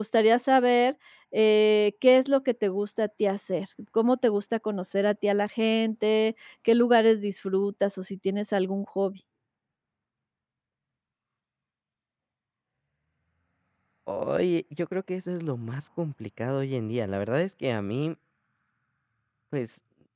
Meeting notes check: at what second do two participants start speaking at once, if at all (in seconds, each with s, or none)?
none